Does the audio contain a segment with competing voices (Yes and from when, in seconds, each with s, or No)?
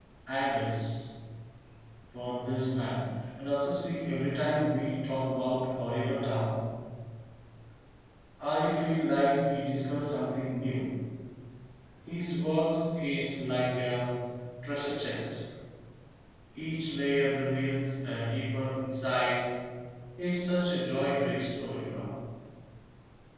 No